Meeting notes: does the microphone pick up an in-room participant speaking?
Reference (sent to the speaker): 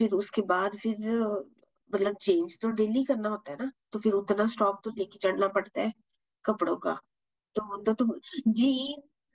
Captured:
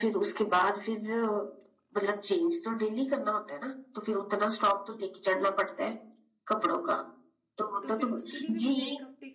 Yes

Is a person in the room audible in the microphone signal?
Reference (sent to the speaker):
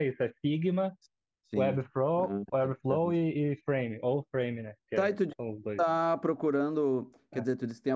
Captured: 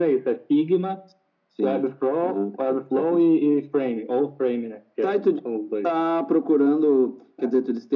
No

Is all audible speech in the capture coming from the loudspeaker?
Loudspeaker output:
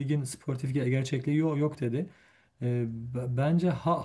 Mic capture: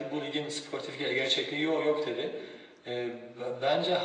Yes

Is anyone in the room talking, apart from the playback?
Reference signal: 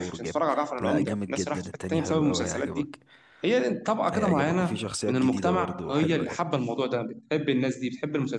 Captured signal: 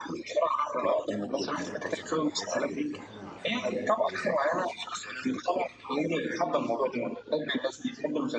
Yes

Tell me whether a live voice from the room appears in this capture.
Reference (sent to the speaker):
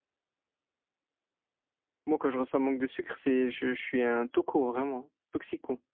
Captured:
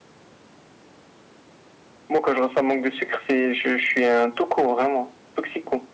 No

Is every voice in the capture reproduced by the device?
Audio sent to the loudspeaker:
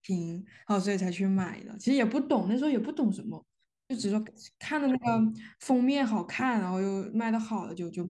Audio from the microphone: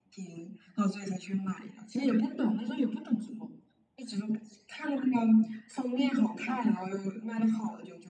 Yes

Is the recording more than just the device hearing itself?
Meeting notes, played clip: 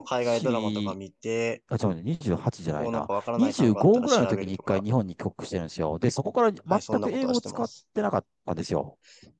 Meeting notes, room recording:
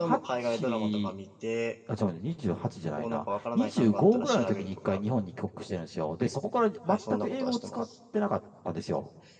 No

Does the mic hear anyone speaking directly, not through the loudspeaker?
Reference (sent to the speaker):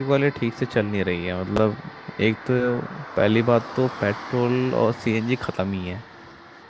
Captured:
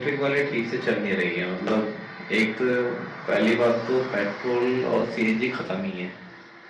No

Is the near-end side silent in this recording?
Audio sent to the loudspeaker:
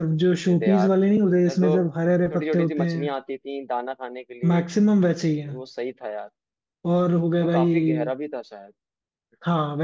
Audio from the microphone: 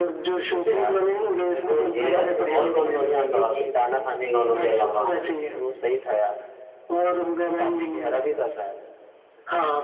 No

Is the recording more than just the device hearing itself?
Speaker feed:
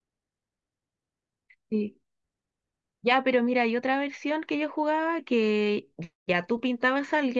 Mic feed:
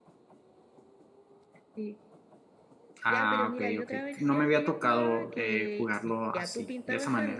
Yes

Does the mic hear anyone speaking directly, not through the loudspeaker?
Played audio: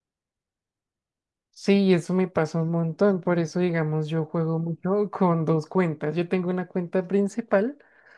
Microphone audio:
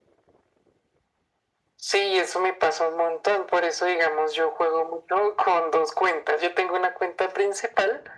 No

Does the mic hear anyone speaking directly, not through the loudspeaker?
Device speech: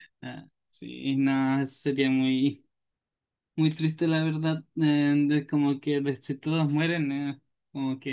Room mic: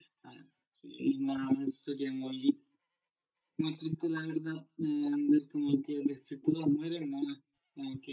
No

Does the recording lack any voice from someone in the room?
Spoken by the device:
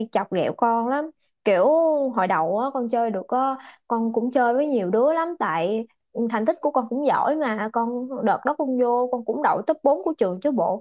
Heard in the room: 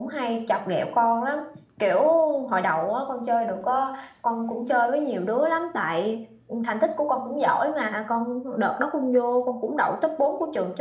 Yes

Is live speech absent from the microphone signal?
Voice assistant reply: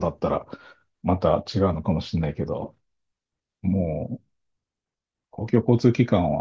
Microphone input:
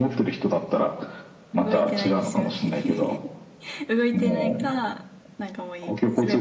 No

